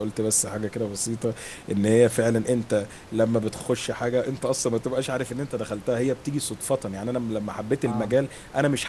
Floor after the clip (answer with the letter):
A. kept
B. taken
A